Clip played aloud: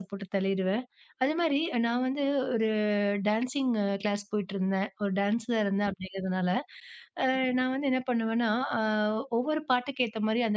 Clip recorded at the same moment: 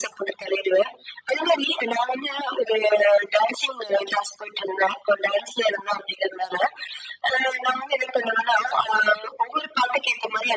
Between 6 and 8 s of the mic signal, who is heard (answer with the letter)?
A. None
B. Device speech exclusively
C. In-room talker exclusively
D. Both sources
B